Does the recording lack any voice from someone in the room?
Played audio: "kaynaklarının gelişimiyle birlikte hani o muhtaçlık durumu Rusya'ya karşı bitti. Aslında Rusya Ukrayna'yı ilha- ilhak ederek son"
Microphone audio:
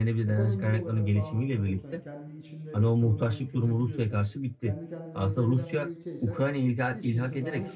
No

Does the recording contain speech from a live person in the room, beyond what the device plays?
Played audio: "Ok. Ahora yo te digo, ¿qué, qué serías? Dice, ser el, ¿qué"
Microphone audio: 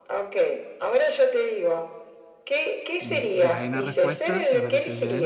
Yes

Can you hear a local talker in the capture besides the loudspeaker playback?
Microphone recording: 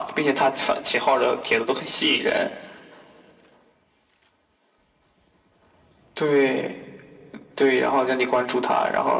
No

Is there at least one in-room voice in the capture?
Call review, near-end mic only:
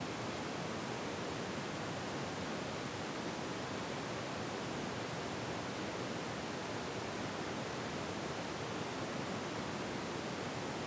No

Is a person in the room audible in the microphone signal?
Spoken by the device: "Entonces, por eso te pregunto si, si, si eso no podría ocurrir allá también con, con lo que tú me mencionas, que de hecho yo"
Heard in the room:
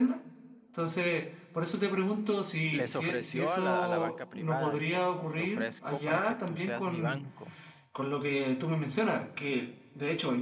Yes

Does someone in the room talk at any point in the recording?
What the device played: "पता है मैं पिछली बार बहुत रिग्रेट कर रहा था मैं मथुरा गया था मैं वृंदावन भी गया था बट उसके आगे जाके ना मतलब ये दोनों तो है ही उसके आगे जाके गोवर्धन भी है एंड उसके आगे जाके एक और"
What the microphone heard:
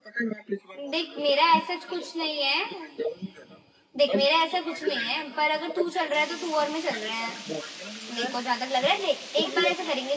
Yes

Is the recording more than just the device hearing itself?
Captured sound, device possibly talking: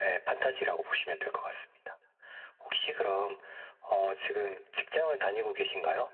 No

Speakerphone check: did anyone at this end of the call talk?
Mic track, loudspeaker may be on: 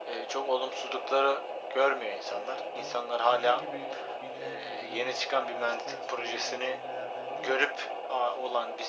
Yes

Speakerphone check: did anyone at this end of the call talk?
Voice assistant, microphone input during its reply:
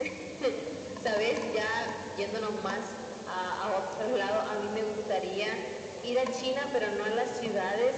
No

